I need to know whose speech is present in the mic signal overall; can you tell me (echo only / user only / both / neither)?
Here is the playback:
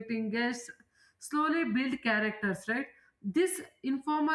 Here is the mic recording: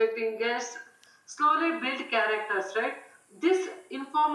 echo only